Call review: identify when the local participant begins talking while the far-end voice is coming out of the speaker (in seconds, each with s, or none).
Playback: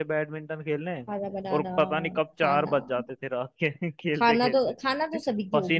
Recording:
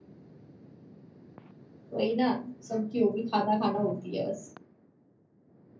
1.9 s